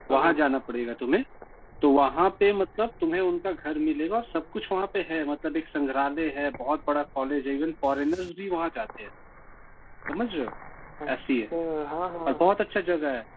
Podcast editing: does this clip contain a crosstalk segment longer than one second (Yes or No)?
No